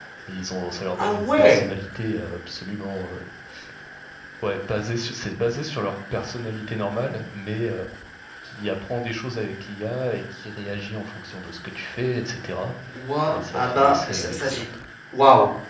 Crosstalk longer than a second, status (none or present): present